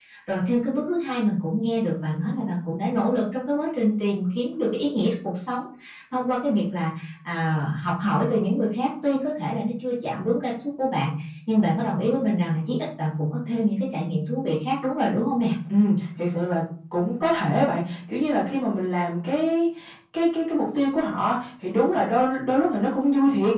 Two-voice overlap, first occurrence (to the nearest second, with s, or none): none